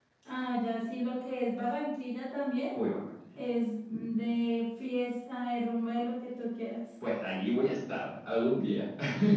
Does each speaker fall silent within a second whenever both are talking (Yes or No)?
Yes